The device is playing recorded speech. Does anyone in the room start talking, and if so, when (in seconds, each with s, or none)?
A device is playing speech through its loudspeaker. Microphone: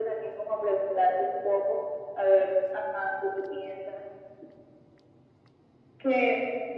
none